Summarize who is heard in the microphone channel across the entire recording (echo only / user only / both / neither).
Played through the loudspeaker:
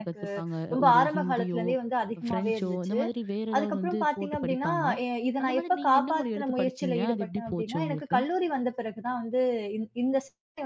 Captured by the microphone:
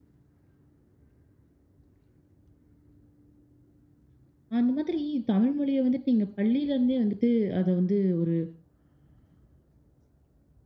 user only